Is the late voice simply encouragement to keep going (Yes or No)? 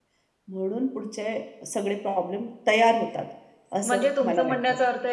No